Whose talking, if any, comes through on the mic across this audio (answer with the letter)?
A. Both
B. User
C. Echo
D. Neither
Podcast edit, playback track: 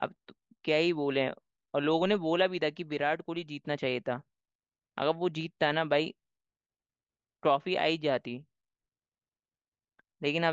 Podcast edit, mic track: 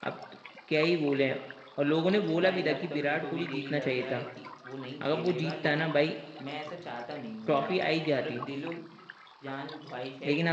A